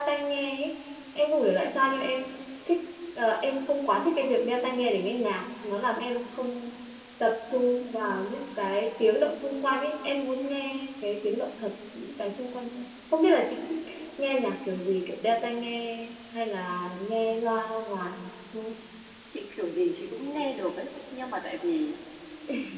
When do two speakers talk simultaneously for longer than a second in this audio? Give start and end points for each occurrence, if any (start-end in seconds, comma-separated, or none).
none